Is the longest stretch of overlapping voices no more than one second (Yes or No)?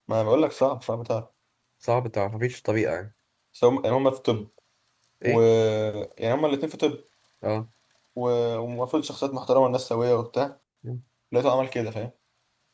Yes